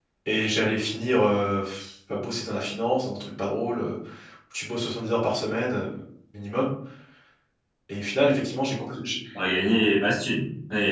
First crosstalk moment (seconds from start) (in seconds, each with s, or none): none